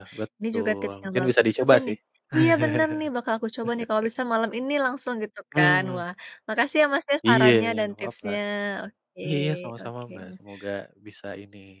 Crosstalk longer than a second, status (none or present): present